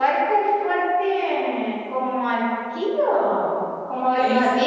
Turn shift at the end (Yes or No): Yes